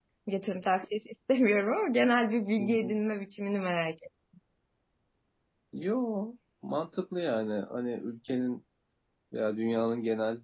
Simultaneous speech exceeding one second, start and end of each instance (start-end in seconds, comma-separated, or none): none